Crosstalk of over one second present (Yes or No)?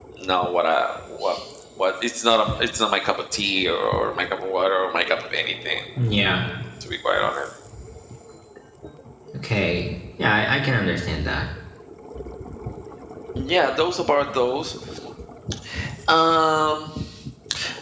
No